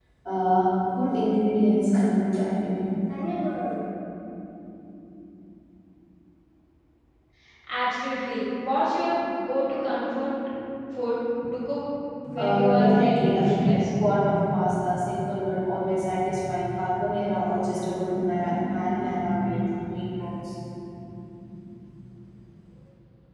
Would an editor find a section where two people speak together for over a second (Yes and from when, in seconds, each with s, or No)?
Yes, from 12.4 s